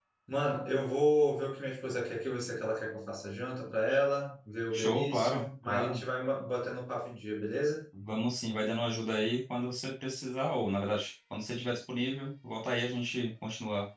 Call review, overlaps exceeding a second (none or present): present